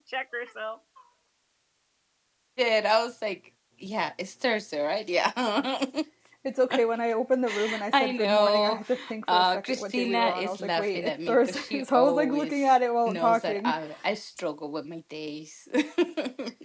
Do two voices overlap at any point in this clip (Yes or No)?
Yes